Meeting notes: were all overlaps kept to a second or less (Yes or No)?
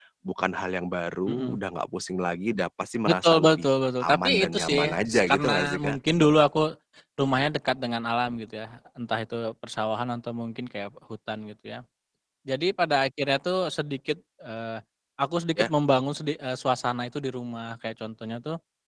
No